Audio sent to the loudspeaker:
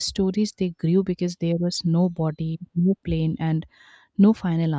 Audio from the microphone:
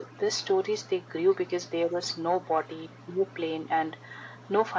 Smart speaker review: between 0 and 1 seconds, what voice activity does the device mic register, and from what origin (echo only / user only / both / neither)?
echo only